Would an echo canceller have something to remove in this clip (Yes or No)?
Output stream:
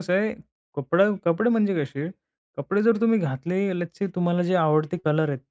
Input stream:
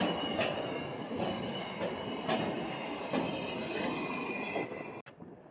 No